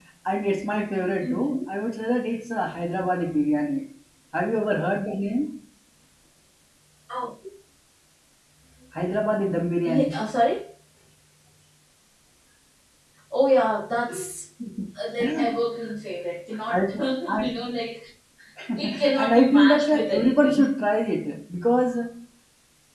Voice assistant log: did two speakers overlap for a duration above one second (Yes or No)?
Yes